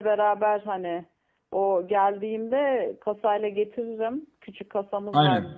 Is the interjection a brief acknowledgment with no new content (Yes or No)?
Yes